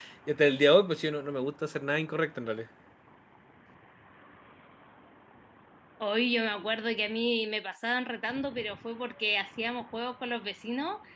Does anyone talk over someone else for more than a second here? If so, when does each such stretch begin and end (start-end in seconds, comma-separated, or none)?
none